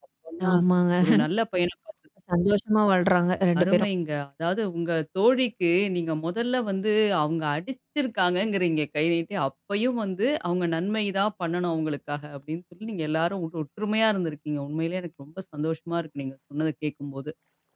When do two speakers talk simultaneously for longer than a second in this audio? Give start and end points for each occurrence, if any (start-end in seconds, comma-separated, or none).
none